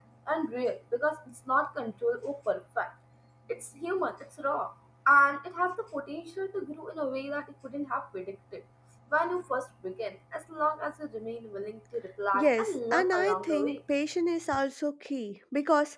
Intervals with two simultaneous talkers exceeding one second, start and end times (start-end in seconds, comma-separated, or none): 12.3-13.8